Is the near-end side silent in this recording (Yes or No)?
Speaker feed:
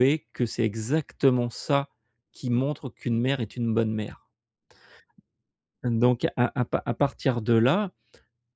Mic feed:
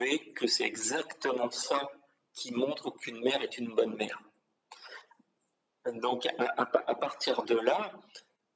Yes